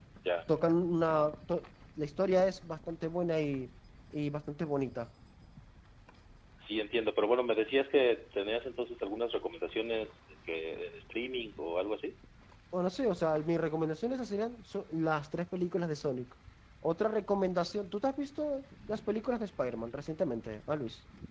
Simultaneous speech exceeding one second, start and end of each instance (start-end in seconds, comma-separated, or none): none